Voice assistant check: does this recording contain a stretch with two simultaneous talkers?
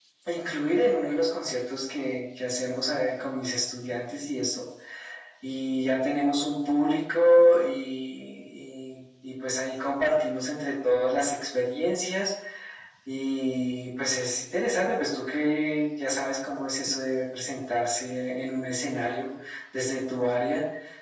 No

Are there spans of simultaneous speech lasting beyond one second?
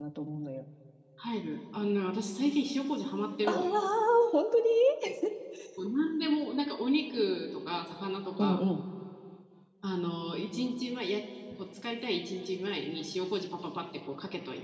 No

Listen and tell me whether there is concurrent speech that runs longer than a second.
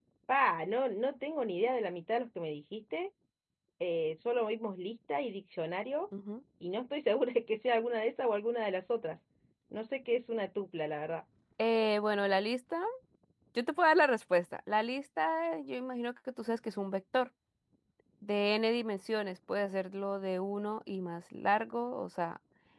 No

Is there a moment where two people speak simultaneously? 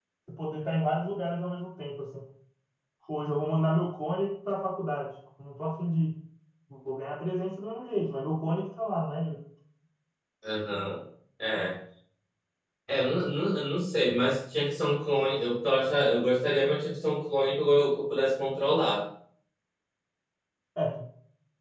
No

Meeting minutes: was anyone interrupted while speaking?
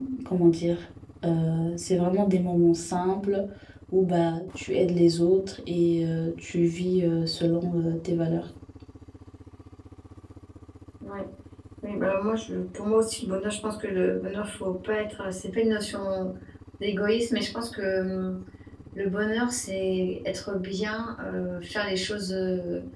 No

